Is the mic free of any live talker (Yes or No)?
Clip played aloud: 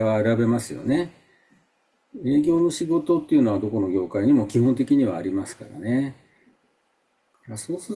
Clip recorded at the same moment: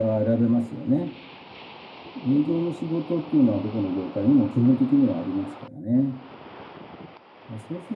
Yes